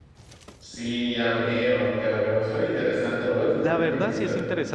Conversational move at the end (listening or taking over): taking over